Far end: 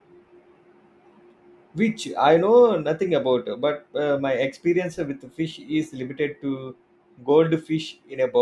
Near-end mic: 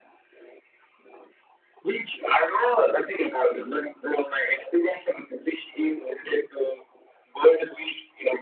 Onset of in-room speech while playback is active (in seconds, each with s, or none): none